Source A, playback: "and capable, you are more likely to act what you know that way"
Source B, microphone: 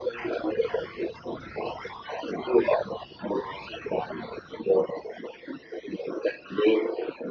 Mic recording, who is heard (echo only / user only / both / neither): echo only